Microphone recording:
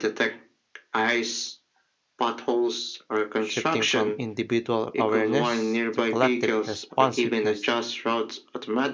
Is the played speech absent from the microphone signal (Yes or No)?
No